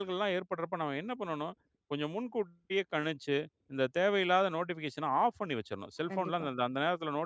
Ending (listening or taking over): listening